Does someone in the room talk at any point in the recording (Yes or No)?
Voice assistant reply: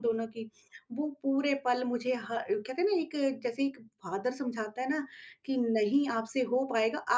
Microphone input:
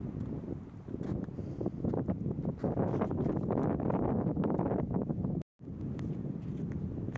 No